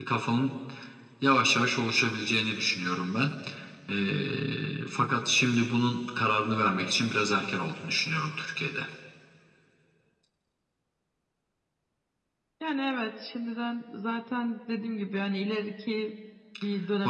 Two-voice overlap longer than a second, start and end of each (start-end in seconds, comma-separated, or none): none